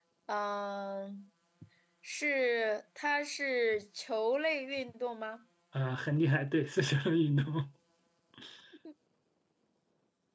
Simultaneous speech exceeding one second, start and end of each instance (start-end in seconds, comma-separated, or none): none